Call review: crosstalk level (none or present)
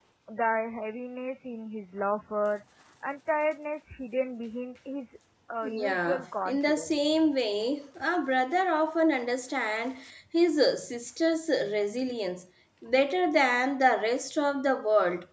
present